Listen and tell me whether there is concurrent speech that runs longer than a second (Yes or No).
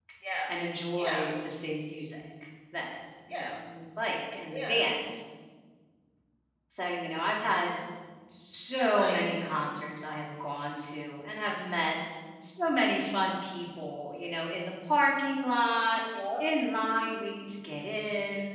No